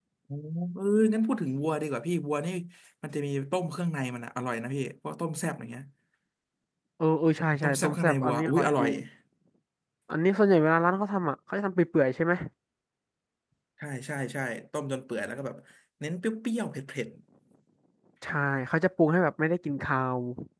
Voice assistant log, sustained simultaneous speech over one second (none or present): present